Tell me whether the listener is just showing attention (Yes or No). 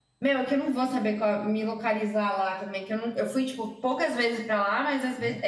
Yes